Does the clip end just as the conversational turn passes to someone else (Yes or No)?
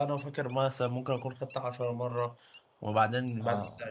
No